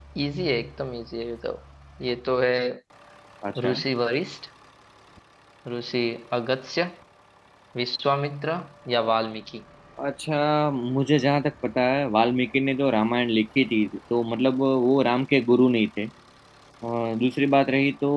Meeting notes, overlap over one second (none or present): none